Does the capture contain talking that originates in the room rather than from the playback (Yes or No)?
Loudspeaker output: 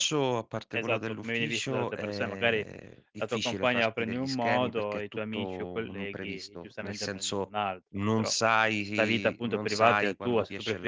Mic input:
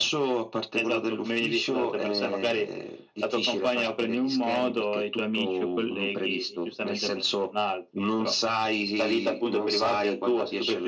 No